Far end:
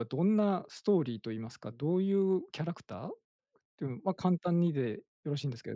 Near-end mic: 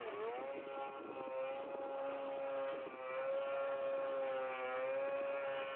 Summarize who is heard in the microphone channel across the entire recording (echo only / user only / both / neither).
neither